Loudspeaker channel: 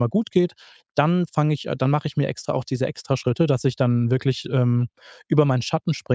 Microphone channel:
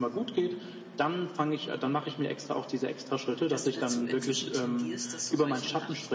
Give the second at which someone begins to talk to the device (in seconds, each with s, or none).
3.5 s